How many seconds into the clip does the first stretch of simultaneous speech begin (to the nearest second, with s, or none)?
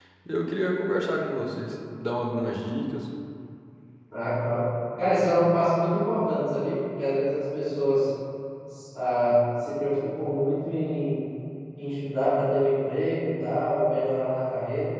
none